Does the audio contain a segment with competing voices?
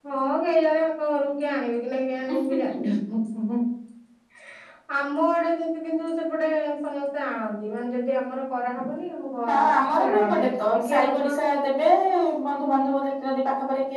Yes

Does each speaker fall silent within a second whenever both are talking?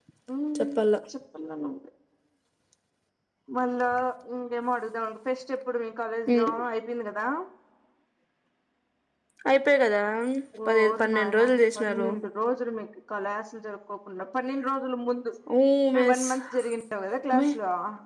No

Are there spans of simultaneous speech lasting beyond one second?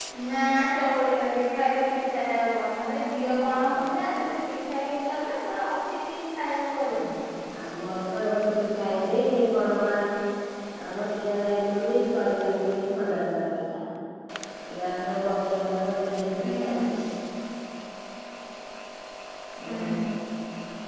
No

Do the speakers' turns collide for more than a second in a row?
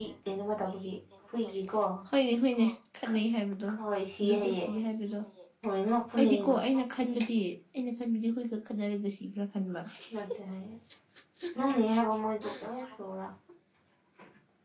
No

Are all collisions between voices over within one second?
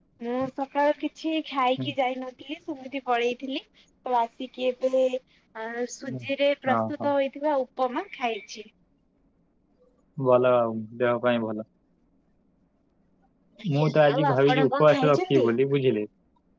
No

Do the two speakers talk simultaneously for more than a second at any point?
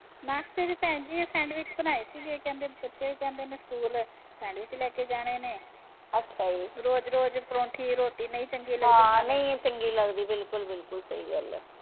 No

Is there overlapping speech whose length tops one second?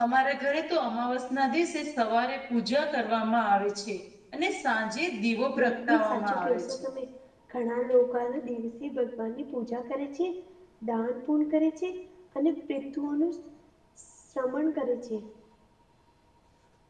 Yes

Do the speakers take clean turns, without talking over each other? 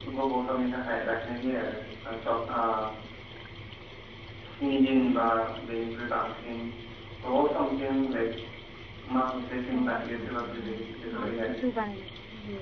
No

